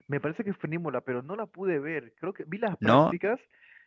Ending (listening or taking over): listening